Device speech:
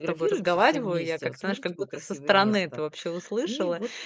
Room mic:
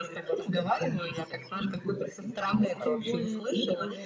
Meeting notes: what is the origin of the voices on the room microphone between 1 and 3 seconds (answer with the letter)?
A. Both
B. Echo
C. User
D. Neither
A